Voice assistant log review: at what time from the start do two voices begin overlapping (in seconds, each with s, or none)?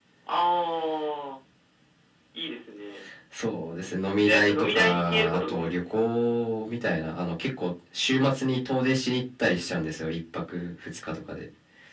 4.2 s